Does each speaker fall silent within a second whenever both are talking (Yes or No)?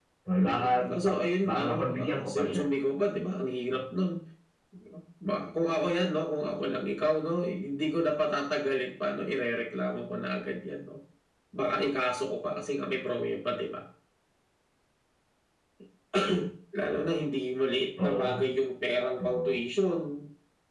No